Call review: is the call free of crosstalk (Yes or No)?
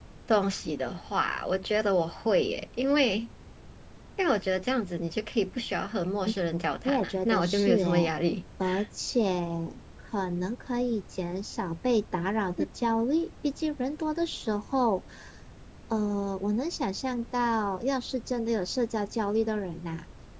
No